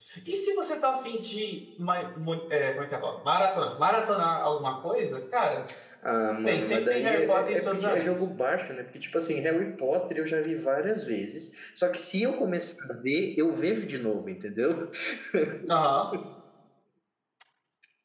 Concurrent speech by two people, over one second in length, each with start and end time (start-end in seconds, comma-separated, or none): 6.5-8.2